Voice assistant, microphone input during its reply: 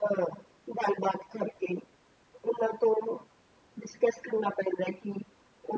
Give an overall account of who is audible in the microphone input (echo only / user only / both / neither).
echo only